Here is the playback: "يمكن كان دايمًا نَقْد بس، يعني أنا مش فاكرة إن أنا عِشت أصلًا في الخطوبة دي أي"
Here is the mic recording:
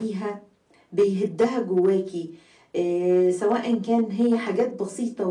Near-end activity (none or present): present